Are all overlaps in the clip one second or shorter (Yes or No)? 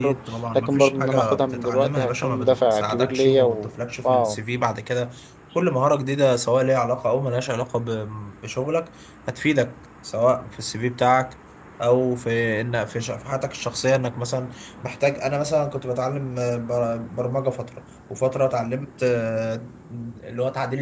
No